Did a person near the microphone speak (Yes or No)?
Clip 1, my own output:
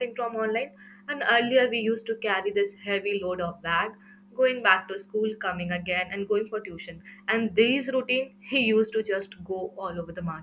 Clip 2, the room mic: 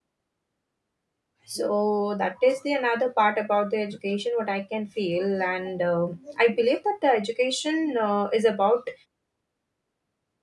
Yes